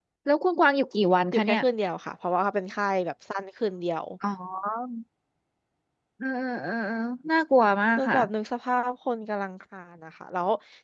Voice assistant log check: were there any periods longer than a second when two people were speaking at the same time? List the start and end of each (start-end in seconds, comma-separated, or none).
none